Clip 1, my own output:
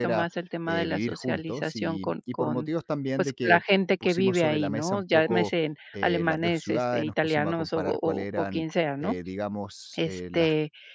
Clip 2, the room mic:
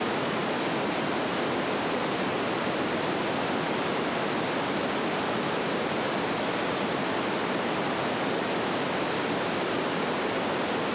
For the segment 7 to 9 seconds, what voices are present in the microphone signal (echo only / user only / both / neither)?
neither